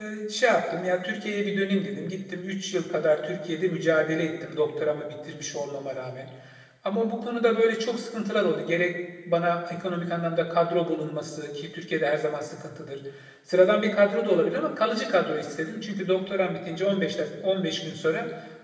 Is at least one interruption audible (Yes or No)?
No